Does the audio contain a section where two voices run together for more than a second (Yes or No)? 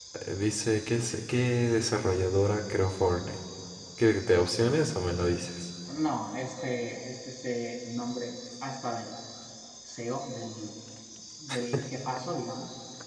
No